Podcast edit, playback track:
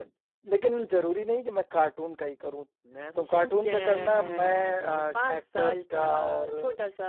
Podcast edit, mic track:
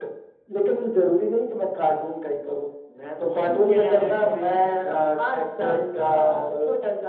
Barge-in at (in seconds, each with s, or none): none